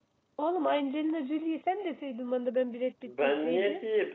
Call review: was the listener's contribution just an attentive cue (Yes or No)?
No